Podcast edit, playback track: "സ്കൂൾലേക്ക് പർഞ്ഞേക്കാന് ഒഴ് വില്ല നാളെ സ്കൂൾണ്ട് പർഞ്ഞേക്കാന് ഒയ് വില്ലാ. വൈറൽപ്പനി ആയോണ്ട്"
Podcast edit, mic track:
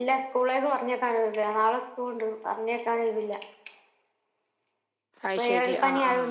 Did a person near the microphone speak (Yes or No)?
Yes